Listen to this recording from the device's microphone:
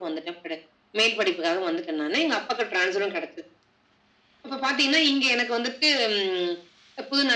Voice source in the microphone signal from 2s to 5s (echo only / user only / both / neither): echo only